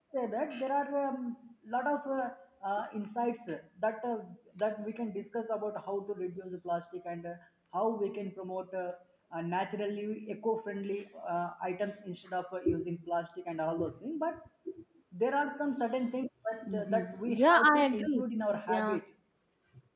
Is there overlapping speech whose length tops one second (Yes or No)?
Yes